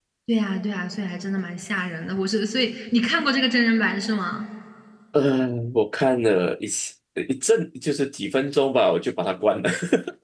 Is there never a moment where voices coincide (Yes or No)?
Yes